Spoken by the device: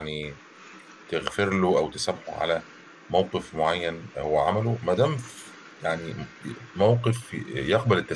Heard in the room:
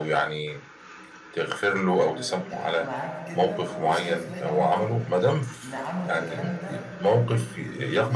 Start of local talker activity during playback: 2 s

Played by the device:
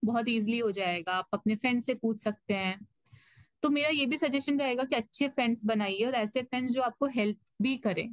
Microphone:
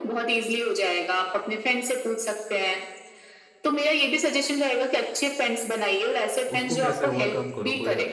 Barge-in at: 7 s

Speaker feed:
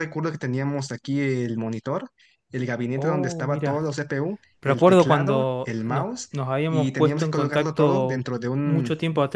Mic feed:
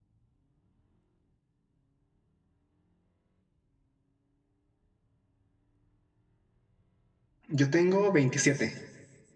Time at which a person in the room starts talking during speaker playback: 7 s

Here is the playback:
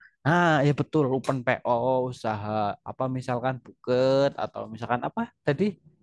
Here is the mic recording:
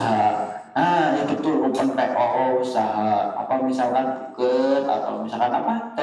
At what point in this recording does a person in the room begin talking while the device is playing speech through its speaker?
none

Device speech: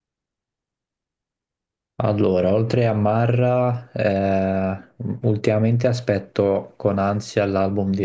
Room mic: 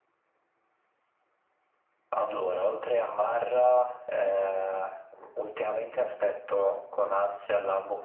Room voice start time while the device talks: none

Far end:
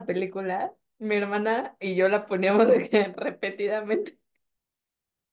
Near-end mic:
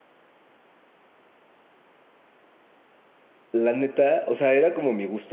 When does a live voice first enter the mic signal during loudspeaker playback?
3 s

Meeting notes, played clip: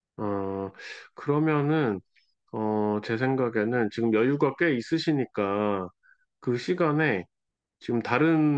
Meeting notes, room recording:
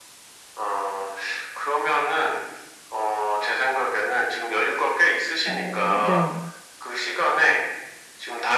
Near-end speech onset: 5 s

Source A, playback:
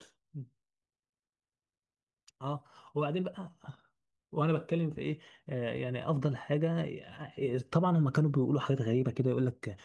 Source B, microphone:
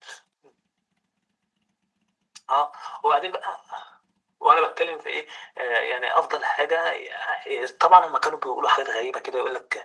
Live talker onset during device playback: none

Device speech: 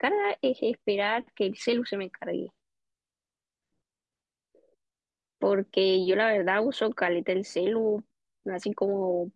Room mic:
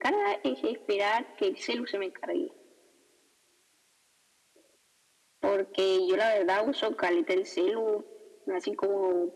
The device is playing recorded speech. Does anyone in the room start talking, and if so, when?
none

